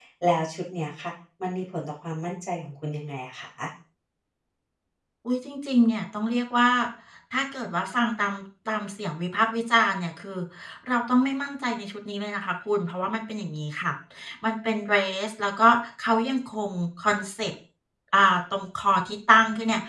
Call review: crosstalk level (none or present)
none